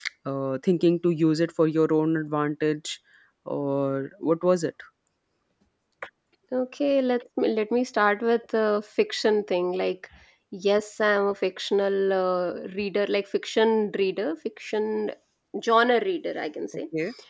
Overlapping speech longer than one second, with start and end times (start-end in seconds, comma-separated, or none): none